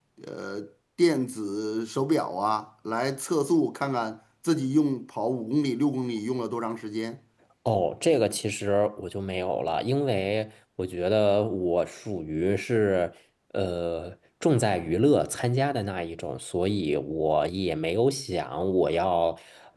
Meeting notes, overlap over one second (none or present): none